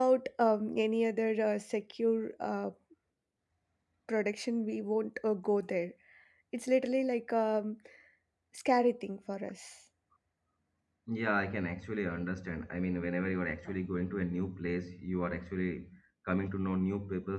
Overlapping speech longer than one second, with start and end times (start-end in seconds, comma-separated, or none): none